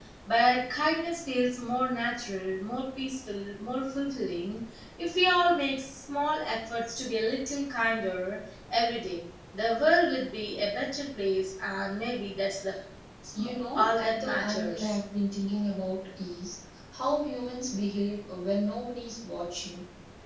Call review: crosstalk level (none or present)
present